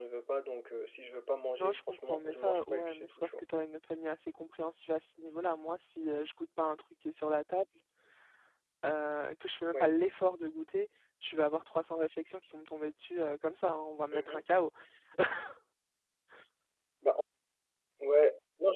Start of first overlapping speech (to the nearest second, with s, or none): 2 s